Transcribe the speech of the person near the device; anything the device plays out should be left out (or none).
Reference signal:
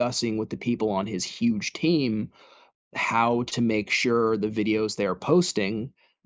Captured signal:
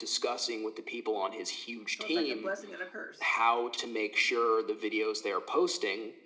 So, it's like a blessing and a curse.